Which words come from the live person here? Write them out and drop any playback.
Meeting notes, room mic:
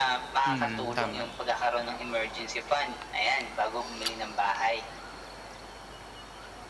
Mm, tama,

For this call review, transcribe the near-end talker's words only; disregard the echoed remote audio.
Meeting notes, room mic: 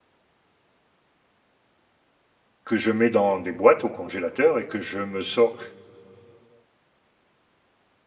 Que je mets dans des boîtes au congélateur et que je me sors.

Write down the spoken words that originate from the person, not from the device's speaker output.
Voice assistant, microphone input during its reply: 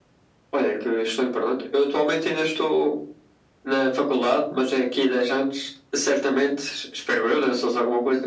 none

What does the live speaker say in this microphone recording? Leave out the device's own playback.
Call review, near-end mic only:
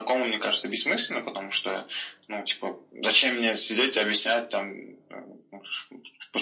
none

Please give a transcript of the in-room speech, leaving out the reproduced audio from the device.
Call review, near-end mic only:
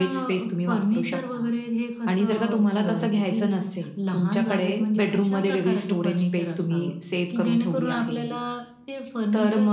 none

